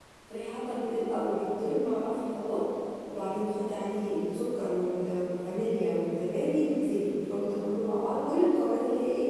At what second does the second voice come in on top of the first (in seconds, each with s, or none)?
none